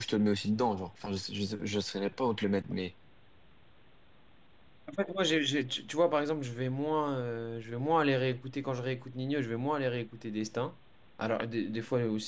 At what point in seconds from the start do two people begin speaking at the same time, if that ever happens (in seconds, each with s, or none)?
none